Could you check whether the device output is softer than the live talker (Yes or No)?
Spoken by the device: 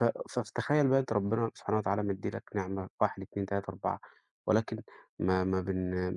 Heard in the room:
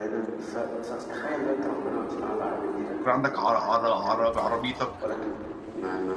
Yes